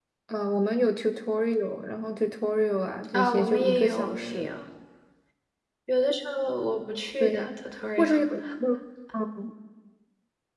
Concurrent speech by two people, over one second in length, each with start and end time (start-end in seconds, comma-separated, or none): 3.1-4.5